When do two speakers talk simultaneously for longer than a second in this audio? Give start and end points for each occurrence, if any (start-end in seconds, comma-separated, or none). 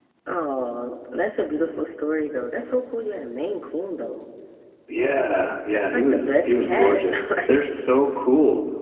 5.7-7.7